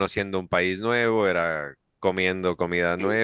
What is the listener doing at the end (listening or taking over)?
listening